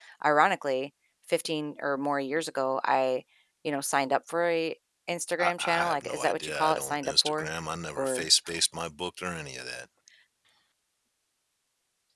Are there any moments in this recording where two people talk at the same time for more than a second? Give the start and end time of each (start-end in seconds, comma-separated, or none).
5.4-7.5